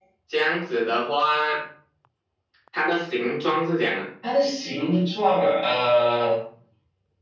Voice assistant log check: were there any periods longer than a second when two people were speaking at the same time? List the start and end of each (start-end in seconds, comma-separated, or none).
none